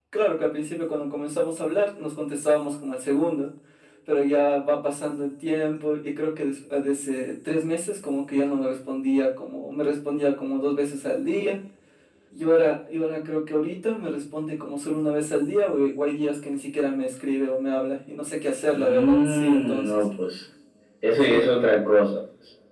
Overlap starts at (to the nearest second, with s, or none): 19 s